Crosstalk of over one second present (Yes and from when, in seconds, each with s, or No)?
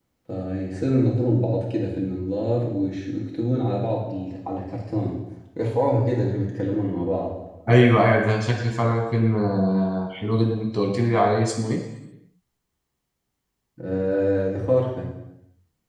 No